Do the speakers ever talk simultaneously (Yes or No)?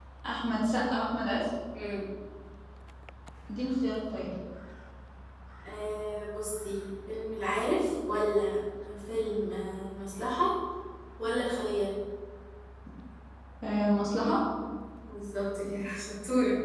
No